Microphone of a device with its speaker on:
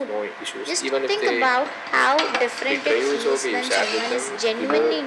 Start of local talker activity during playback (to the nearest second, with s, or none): none